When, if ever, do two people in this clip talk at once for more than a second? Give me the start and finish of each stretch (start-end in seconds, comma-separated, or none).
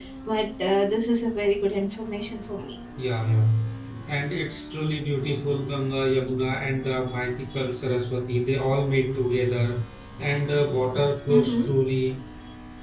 none